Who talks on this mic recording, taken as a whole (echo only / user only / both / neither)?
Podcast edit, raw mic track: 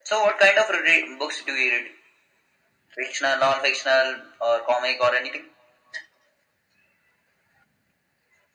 echo only